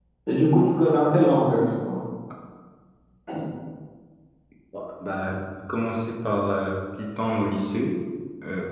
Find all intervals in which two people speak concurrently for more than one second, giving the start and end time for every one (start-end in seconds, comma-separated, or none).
none